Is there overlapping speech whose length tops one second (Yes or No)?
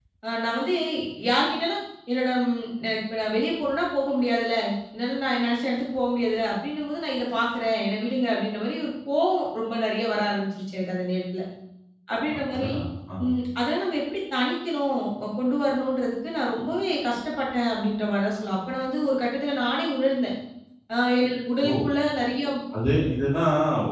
No